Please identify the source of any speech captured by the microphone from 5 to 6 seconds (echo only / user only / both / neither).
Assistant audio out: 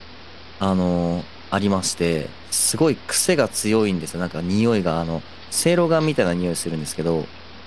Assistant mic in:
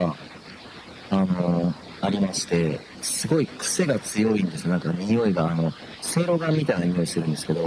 echo only